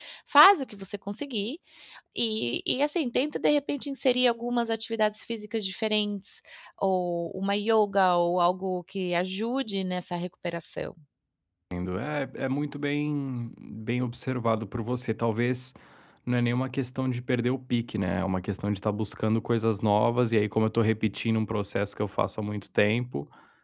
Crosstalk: none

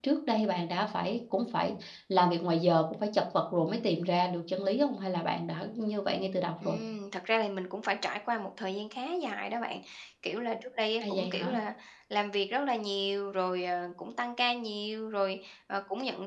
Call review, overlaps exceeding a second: none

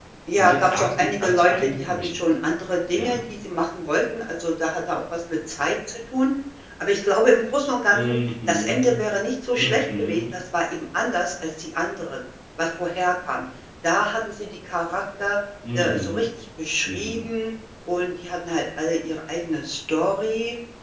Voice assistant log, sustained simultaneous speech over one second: present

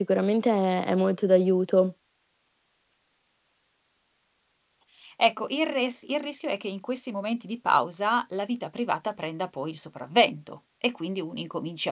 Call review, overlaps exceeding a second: none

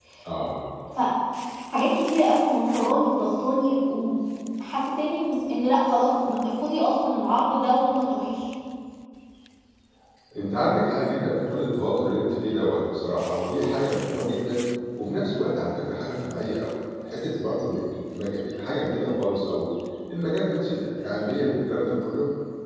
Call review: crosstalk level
none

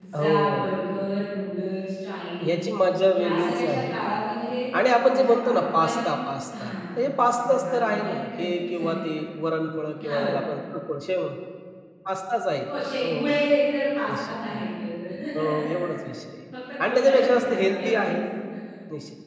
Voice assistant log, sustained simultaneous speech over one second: present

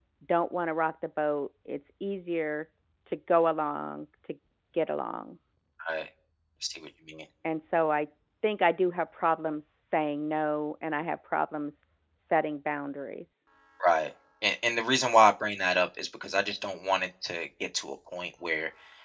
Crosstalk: none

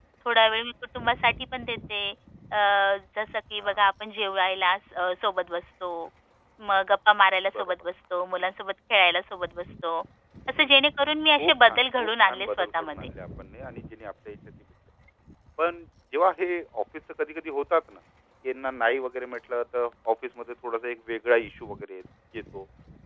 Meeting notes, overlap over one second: present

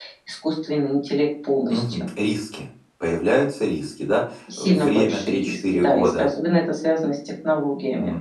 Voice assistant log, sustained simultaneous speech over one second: present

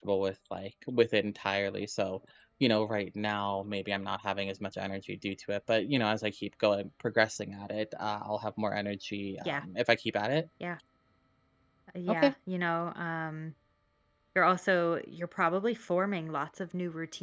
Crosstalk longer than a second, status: none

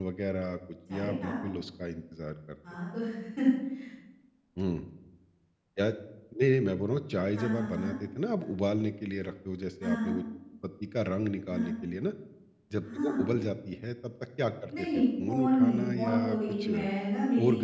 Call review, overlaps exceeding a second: present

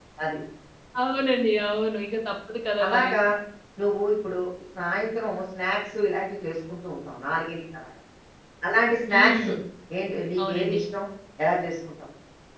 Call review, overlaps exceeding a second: none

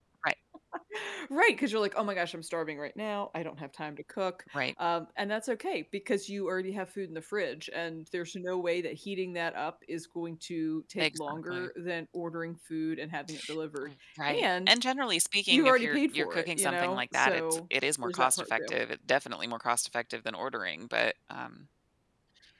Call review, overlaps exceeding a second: present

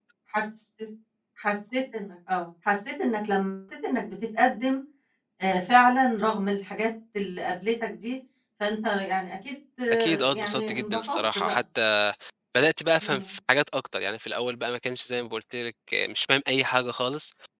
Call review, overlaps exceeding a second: present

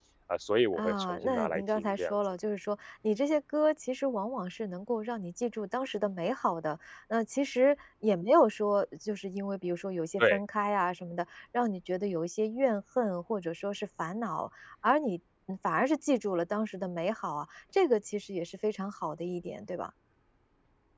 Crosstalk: present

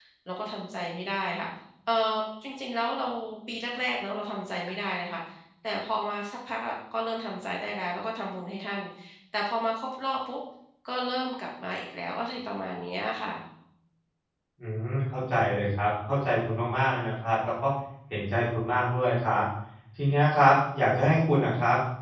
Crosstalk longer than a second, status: none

